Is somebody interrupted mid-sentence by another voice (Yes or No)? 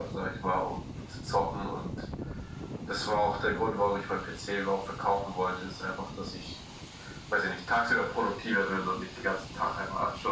No